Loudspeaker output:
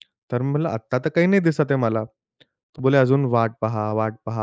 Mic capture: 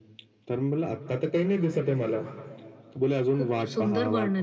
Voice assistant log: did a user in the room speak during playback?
Yes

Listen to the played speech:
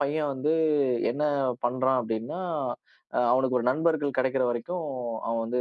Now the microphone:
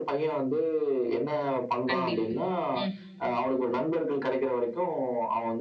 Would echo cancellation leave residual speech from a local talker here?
Yes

